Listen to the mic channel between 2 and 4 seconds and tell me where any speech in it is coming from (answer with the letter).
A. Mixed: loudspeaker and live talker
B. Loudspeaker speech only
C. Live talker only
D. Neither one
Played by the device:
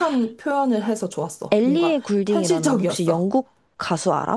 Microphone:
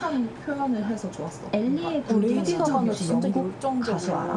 A